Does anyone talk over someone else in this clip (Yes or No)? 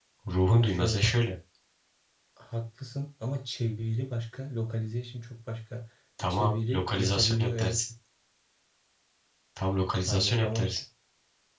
Yes